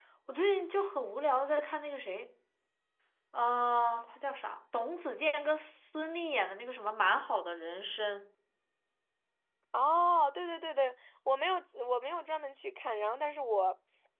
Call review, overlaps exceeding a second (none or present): none